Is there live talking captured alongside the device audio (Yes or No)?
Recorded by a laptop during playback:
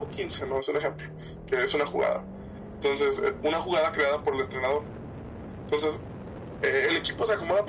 No